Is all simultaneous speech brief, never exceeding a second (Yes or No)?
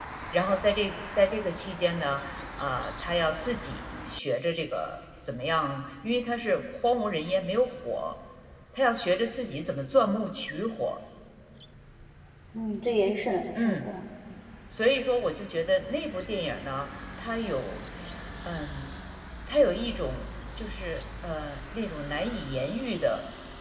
Yes